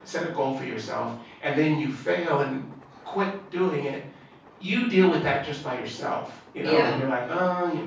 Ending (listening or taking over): listening